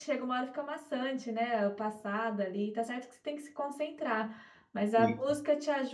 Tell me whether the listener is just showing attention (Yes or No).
Yes